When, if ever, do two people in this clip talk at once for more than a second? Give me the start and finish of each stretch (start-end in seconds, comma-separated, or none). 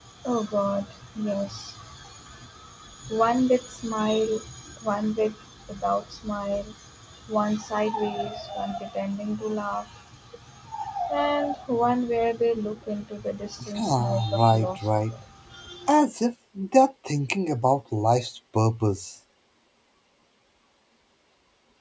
13.8-15.1